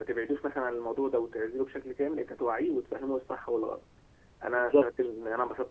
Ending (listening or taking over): listening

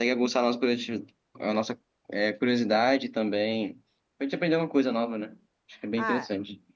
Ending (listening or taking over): taking over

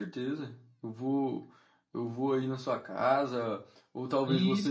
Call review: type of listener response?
listening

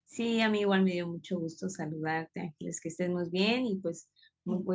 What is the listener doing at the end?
listening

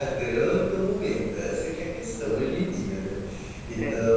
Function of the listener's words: listening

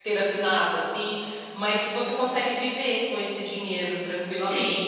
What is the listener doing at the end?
taking over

